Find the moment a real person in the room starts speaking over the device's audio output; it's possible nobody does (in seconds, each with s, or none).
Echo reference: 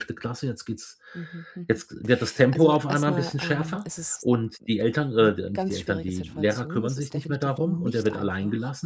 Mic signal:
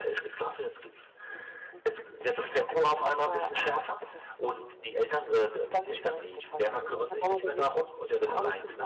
6.9 s